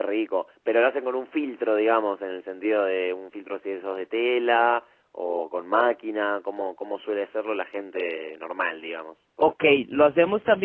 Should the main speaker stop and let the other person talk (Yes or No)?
Yes